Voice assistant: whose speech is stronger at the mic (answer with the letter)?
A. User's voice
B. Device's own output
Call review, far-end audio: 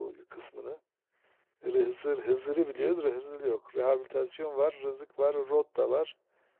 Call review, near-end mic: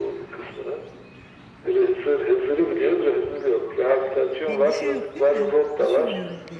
B